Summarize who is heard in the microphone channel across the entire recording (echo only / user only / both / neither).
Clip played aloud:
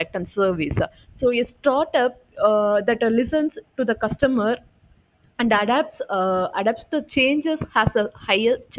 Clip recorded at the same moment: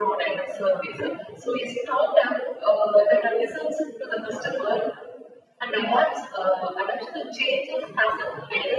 echo only